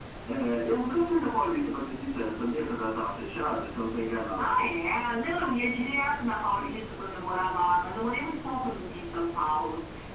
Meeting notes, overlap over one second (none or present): none